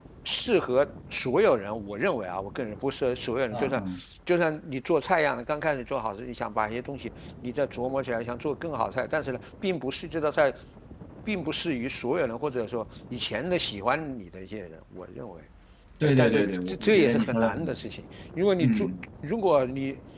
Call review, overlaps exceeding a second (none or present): present